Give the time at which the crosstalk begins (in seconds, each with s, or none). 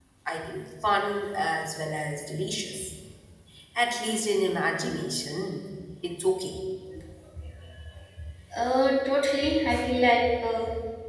none